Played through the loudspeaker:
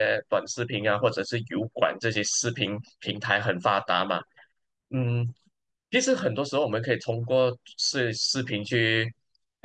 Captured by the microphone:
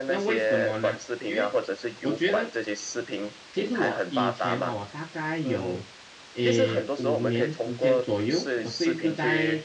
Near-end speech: present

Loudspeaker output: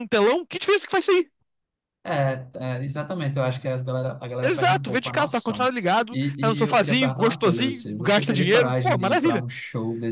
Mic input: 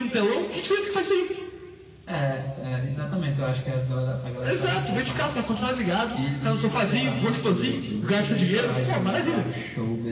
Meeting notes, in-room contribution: none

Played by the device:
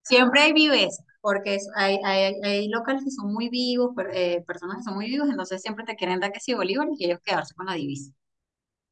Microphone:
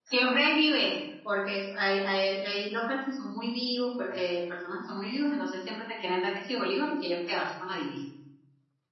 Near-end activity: none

